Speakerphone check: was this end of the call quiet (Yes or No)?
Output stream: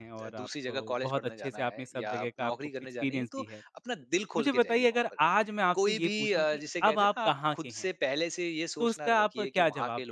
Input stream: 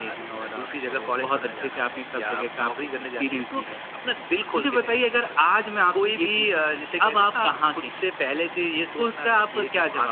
Yes